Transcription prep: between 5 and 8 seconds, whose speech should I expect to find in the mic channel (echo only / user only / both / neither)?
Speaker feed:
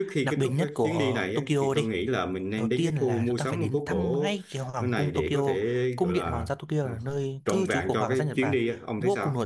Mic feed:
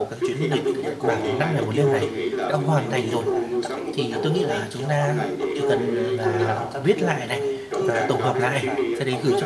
both